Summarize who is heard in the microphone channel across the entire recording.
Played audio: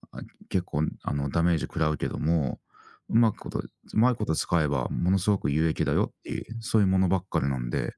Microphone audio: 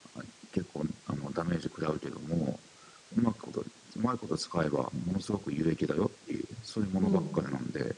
both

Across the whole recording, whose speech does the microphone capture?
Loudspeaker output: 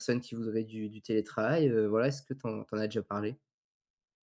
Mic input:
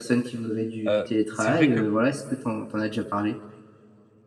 both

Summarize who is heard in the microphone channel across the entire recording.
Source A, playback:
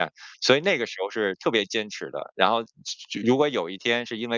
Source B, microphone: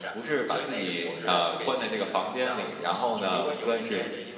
both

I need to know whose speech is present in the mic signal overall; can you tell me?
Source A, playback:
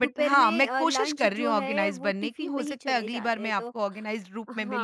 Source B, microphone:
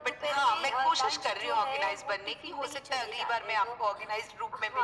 echo only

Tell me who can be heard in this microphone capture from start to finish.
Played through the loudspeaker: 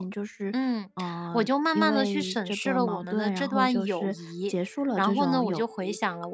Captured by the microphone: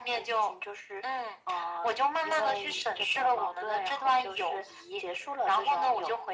echo only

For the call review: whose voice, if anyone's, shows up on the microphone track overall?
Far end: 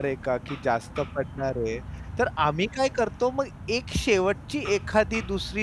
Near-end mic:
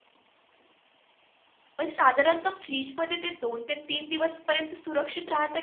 user only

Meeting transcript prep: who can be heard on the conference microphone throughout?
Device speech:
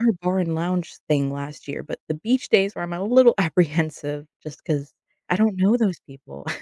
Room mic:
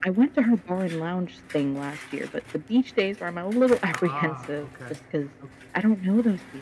both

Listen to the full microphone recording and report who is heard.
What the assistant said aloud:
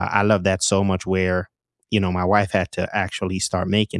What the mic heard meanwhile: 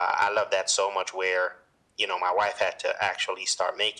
echo only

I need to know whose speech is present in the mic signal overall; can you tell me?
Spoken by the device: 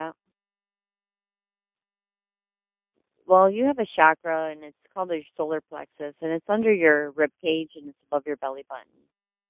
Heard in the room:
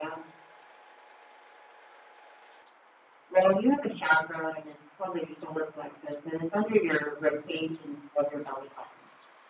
echo only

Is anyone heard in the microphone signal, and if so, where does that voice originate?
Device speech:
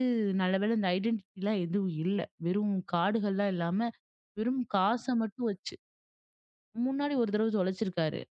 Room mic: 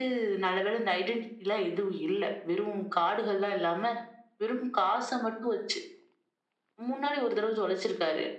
echo only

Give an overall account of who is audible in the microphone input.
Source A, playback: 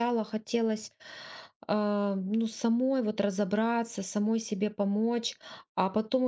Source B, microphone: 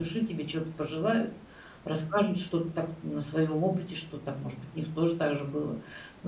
user only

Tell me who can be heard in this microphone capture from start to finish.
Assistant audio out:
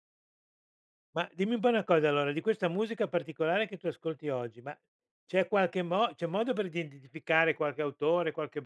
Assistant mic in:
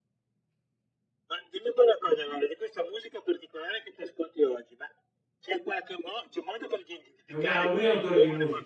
both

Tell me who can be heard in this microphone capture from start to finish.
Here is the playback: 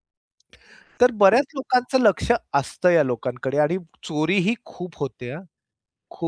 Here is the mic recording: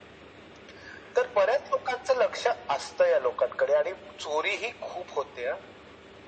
echo only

